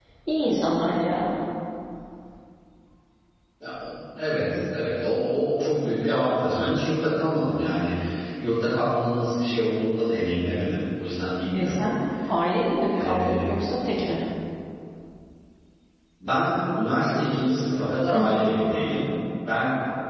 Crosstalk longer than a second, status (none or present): none